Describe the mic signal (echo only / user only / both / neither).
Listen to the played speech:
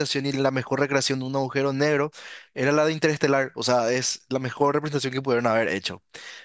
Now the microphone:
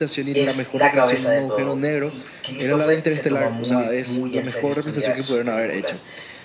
both